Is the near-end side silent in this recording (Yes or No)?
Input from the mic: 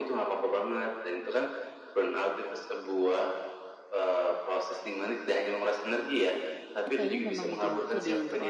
No